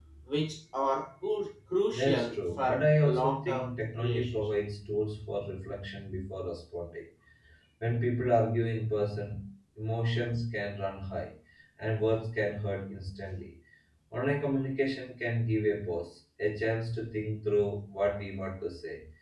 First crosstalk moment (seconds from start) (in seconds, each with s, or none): 1.9 s